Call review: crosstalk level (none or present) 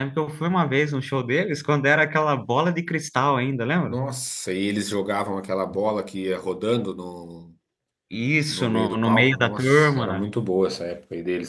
present